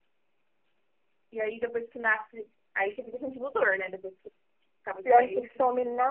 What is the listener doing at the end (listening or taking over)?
taking over